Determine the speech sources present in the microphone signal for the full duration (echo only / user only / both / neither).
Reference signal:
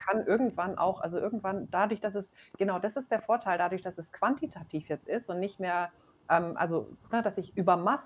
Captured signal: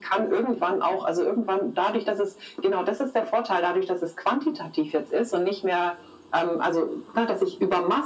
echo only